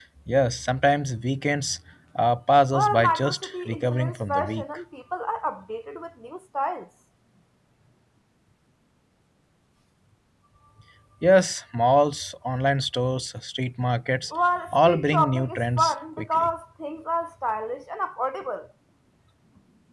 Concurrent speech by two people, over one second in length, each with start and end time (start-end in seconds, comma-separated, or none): 2.7-4.6, 14.7-16.5